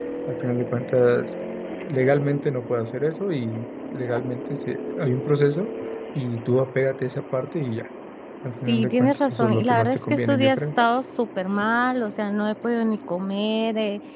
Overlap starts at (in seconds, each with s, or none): 8.7 s